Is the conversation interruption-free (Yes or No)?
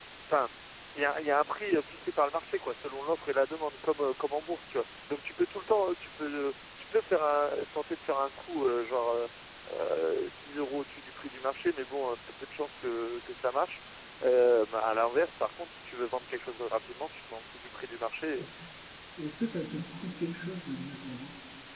Yes